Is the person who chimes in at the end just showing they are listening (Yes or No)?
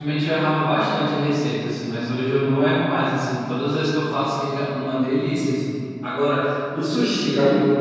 Yes